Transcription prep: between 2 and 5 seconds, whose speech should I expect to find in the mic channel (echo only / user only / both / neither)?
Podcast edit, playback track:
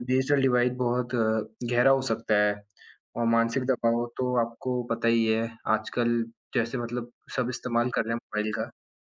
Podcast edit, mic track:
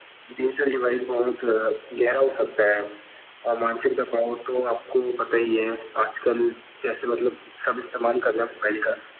echo only